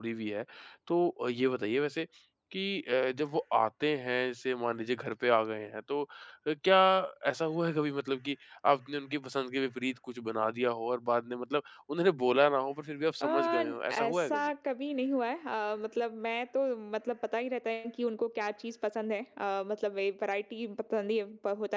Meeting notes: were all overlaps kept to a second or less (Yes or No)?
No